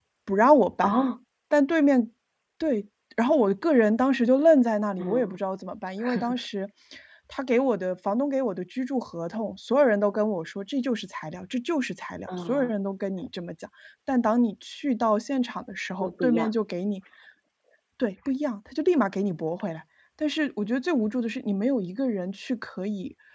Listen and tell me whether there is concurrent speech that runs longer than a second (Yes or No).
No